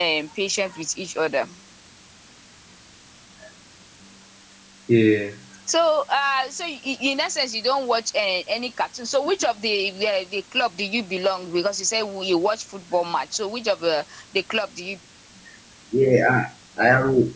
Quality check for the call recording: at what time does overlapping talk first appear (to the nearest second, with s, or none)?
none